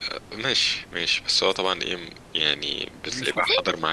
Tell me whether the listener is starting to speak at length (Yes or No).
No